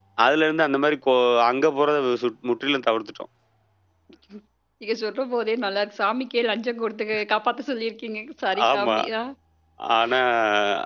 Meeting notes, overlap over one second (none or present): none